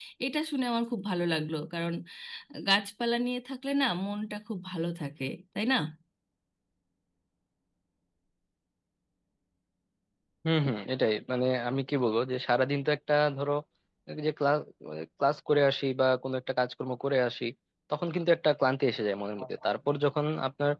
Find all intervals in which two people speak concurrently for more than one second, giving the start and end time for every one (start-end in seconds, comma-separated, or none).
none